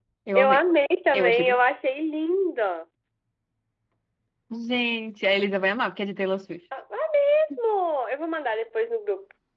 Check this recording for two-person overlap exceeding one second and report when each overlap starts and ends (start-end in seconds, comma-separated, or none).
none